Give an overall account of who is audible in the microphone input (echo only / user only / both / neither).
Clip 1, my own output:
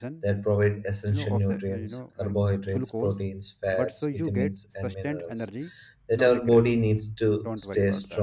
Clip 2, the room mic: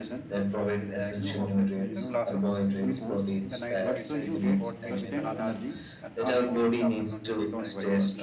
both